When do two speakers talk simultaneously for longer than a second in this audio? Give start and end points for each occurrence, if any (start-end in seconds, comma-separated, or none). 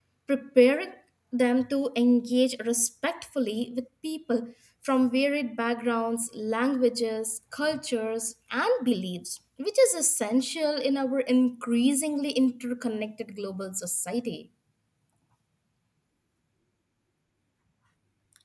none